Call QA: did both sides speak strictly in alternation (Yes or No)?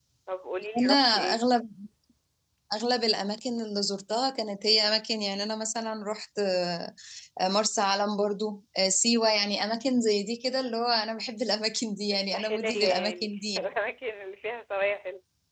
No